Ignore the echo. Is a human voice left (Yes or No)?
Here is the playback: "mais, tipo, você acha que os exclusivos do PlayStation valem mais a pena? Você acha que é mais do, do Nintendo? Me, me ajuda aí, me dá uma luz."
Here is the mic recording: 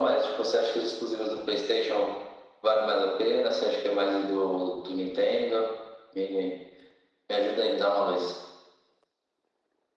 No